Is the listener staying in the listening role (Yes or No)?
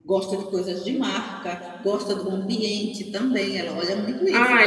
No